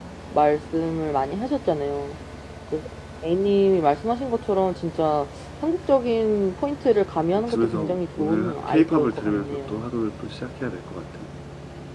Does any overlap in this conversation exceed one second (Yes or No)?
Yes